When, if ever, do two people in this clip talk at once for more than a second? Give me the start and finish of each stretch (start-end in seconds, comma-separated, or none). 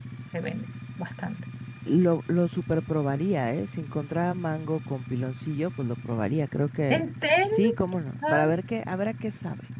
none